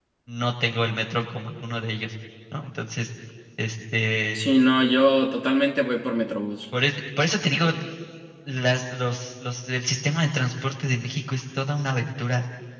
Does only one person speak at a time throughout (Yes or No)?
Yes